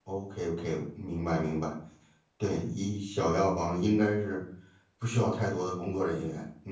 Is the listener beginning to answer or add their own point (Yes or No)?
Yes